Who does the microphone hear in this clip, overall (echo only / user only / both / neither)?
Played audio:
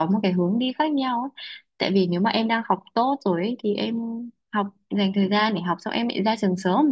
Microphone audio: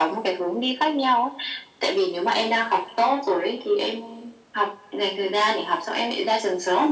echo only